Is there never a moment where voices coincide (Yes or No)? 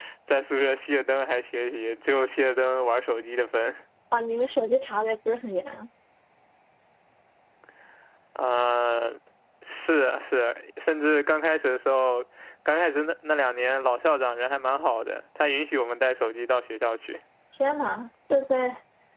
Yes